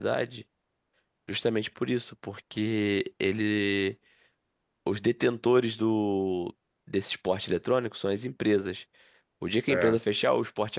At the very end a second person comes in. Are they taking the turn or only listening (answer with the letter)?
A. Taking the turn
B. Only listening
B